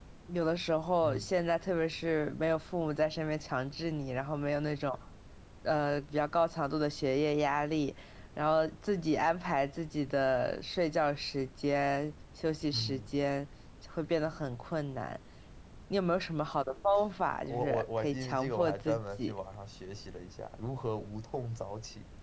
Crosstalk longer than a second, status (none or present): present